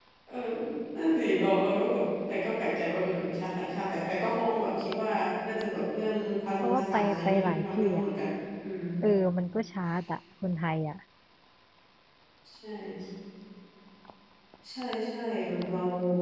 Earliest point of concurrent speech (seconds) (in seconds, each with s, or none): 6.6 s